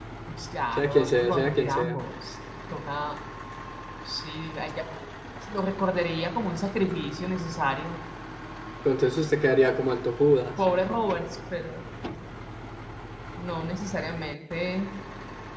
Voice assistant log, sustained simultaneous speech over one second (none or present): present